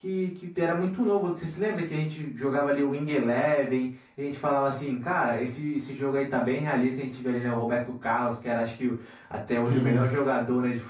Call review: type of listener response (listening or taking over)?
listening